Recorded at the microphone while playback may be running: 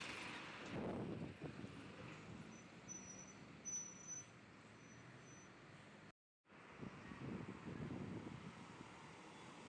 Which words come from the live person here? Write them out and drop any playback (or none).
none